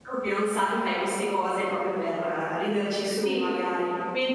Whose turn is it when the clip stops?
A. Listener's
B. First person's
A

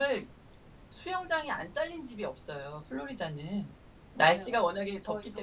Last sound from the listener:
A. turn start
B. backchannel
A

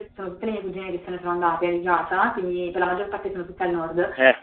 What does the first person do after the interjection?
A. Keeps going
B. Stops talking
A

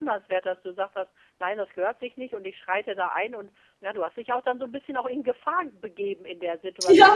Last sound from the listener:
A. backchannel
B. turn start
B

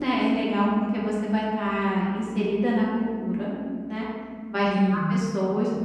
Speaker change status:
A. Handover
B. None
B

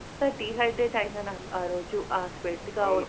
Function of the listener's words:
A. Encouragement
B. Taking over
B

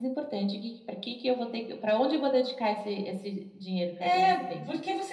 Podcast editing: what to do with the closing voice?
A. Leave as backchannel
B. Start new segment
B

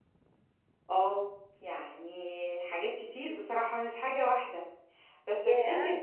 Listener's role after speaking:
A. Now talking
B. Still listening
B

